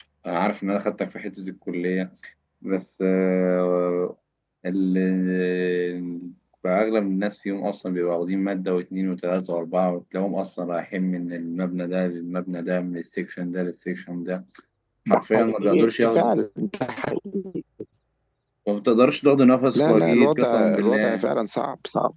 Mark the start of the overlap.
15.1 s

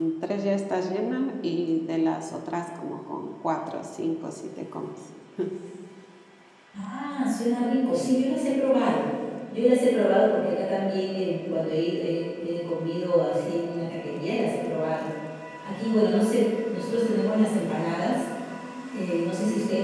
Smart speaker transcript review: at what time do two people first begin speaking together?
none

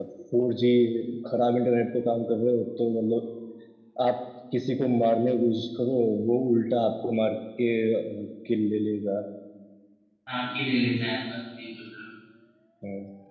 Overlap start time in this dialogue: none

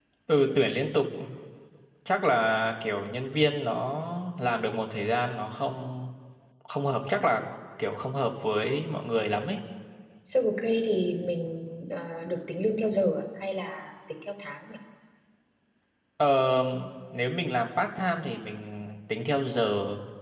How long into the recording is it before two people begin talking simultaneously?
none

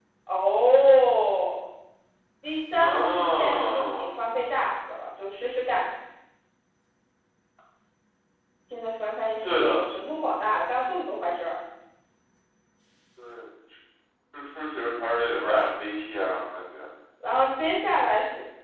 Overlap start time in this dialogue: 2.8 s

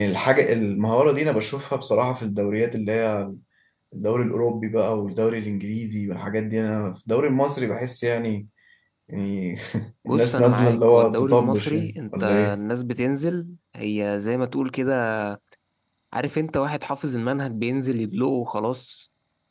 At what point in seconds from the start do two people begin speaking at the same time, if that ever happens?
10.1 s

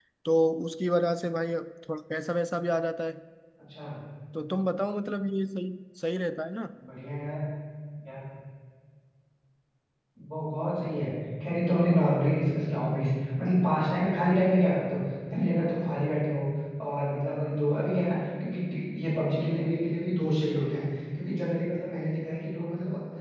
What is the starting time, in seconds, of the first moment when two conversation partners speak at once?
none

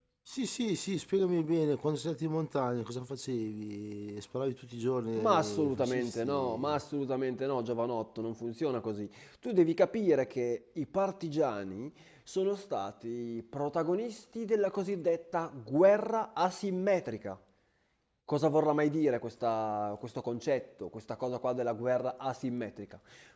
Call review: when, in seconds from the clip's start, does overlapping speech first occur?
5.2 s

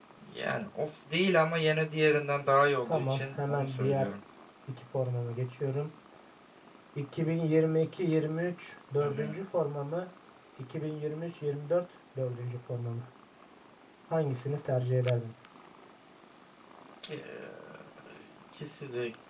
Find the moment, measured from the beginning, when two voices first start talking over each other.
2.8 s

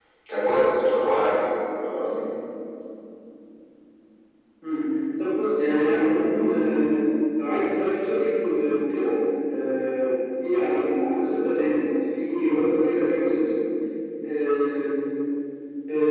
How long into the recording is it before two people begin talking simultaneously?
none

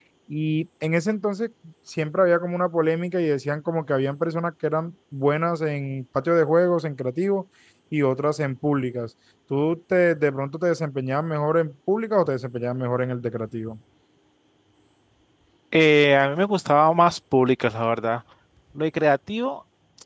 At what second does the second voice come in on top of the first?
none

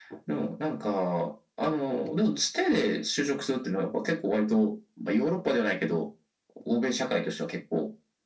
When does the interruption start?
none

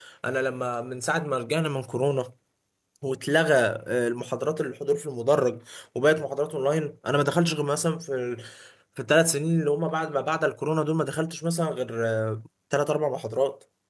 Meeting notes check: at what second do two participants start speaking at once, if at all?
none

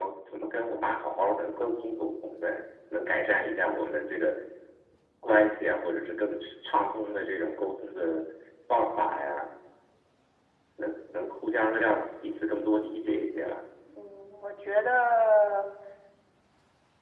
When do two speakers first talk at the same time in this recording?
none

